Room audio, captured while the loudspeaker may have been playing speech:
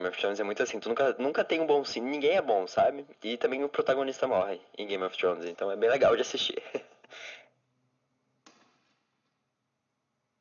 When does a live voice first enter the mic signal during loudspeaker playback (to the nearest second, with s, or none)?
none